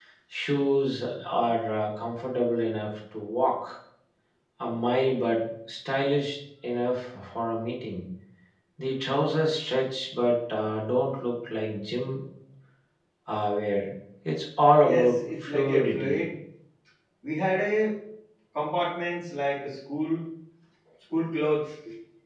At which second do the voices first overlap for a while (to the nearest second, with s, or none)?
15 s